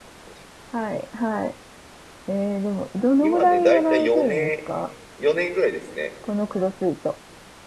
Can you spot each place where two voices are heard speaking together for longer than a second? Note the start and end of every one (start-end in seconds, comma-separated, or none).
3.2-4.5